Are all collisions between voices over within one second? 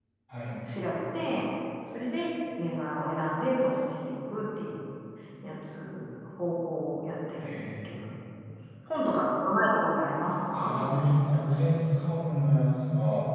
No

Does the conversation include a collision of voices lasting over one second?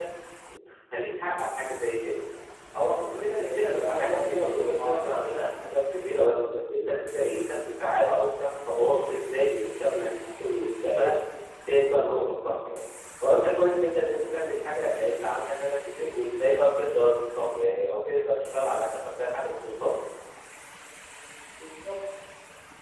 Yes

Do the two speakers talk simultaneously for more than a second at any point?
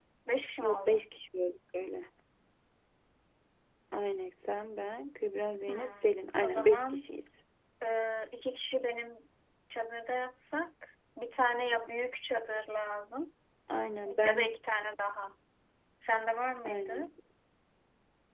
Yes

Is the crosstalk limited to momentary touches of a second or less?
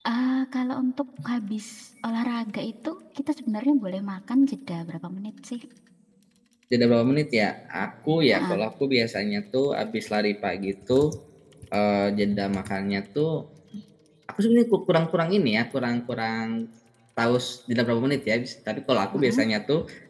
Yes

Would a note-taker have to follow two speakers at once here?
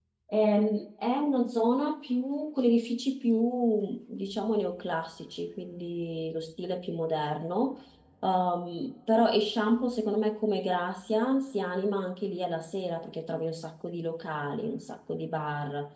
No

